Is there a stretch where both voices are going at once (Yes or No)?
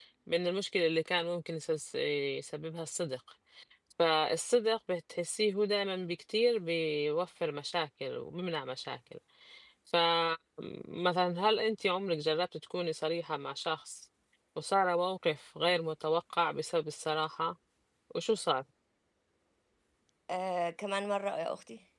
No